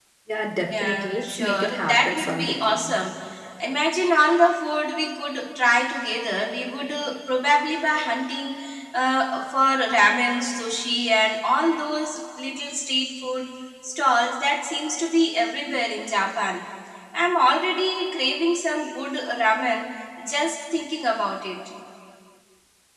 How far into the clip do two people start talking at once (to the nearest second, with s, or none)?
1 s